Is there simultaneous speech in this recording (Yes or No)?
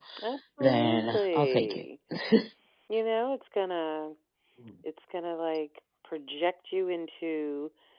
Yes